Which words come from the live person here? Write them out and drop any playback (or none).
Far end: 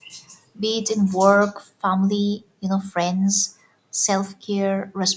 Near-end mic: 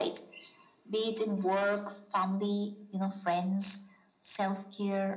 none